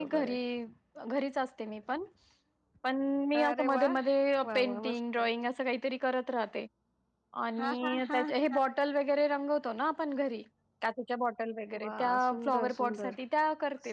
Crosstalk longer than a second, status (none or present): present